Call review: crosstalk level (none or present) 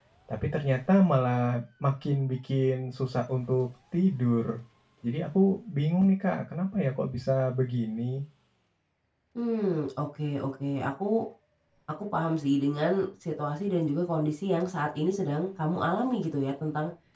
none